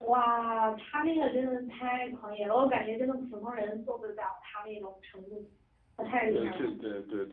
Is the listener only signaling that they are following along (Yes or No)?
No